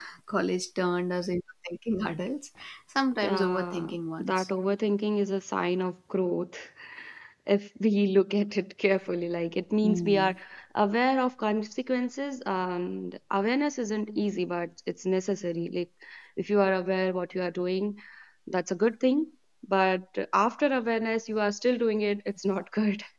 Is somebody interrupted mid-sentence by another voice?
Yes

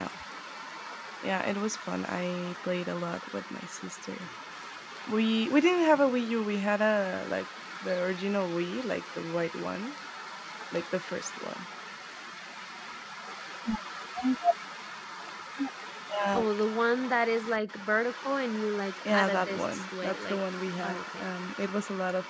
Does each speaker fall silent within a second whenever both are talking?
No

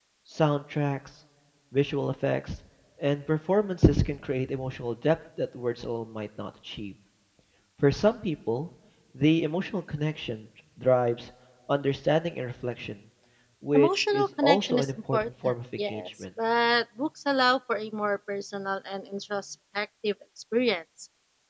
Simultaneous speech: Yes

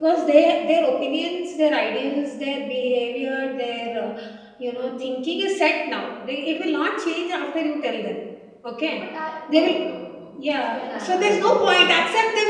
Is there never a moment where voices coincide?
No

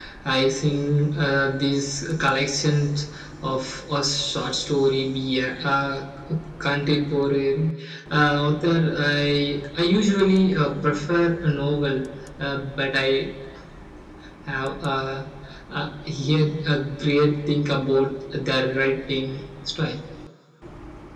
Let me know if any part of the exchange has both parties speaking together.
No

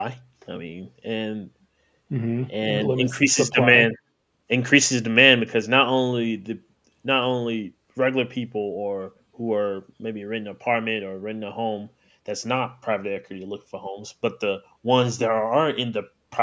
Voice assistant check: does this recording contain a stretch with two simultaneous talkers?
Yes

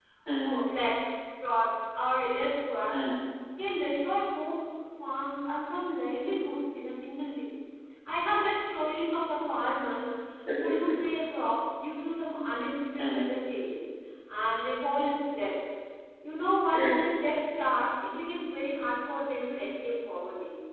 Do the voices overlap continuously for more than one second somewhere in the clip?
No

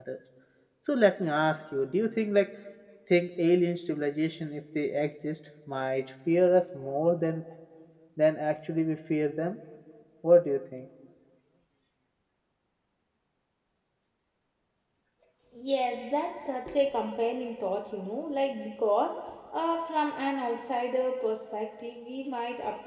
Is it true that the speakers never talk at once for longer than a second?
Yes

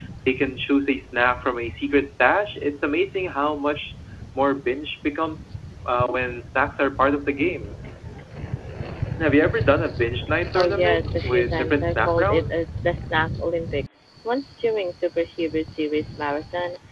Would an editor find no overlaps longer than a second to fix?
No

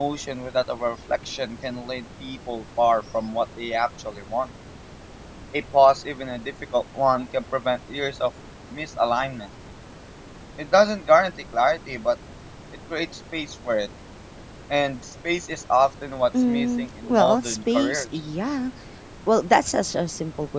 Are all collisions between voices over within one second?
No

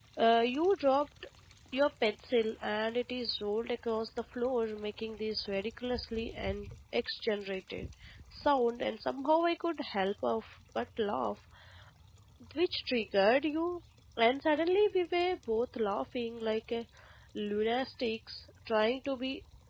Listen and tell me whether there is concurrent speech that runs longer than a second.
No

